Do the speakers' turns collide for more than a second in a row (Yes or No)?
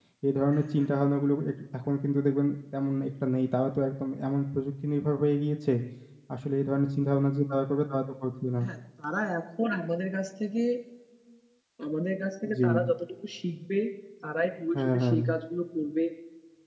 No